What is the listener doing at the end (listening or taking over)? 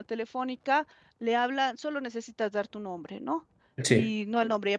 listening